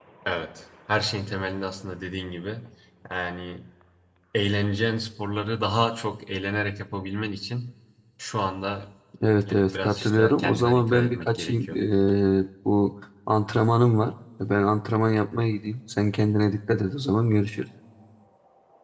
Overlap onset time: 9.5 s

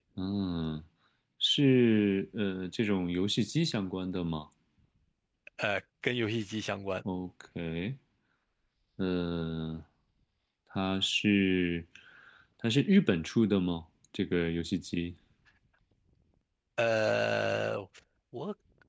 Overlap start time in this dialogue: none

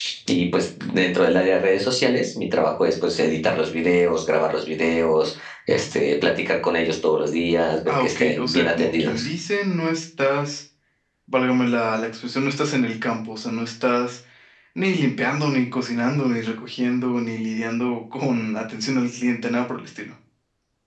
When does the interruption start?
7.9 s

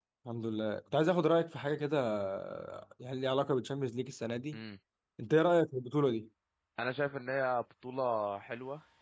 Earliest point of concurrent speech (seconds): none

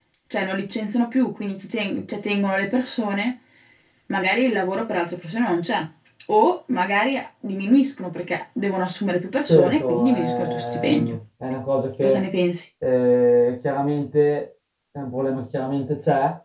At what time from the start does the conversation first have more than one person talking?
9.5 s

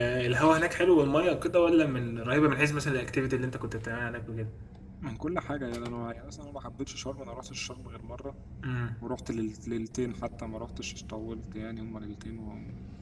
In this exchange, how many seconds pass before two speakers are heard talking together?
none

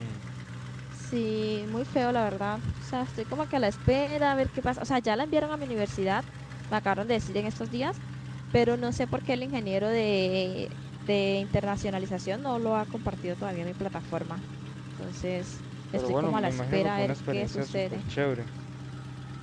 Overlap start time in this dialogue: 15.9 s

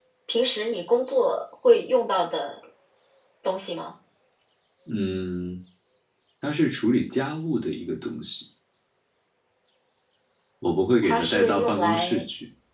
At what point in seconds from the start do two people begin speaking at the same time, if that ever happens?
11.0 s

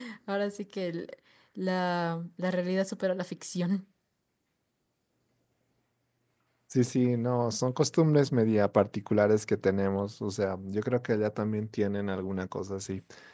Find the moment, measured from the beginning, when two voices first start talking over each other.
none

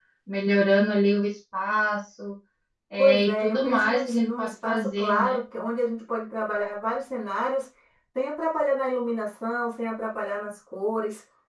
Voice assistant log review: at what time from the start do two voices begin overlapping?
3.0 s

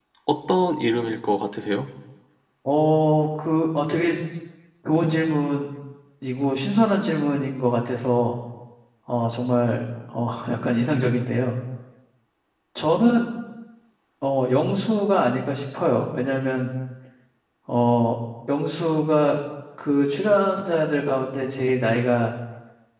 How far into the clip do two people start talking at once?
none

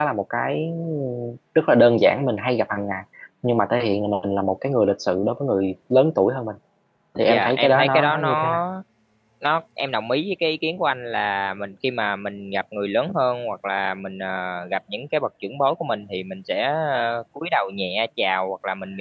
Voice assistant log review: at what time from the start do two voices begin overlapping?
7.3 s

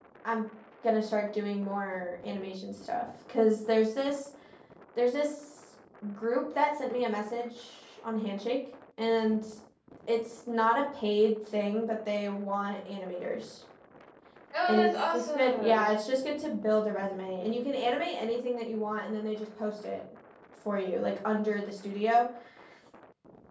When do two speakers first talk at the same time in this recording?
14.7 s

